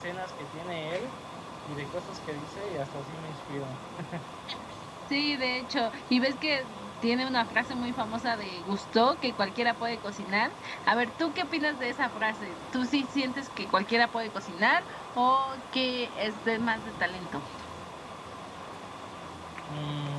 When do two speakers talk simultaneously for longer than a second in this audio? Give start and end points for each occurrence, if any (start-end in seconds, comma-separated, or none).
none